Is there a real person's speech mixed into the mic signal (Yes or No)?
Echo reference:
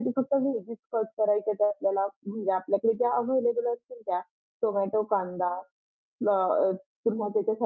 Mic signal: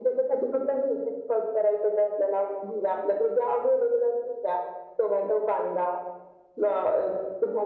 No